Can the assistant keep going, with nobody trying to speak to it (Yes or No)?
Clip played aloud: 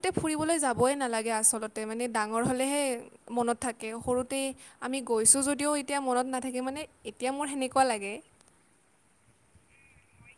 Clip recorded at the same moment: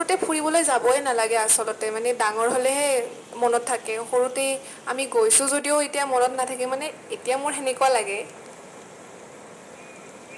Yes